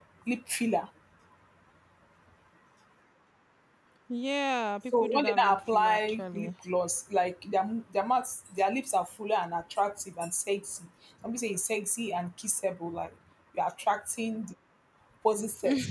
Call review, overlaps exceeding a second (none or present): present